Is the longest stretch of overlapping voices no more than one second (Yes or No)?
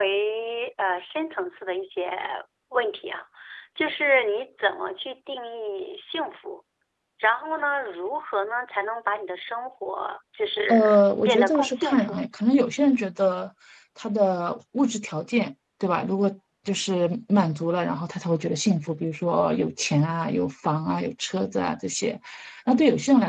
No